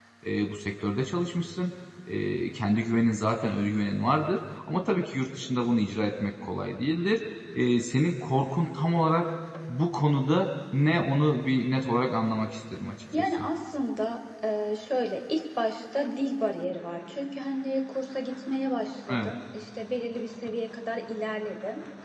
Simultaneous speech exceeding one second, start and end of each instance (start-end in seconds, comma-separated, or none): none